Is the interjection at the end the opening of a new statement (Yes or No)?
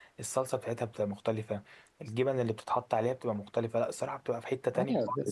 Yes